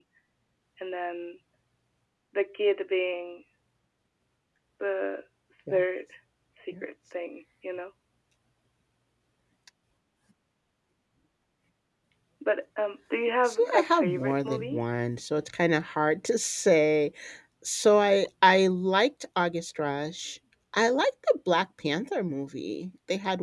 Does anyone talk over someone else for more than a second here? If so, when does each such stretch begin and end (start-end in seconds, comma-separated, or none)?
13.4-14.8